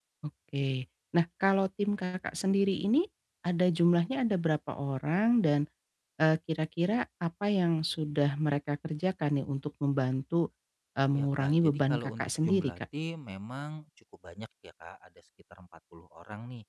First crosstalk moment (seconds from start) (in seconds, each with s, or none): 11.1 s